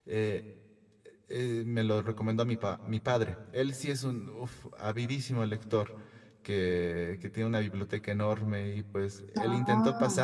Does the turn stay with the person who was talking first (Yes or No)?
Yes